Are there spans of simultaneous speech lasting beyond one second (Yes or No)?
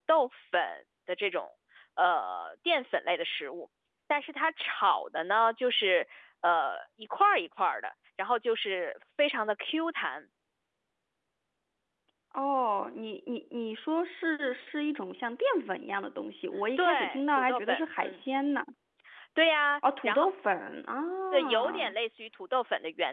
Yes